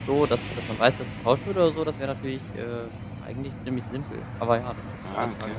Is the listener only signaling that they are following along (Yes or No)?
No